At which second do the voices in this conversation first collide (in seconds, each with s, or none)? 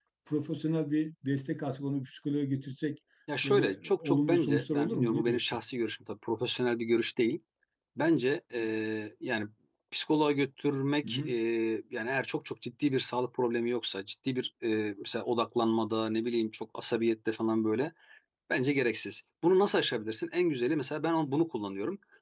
3.4 s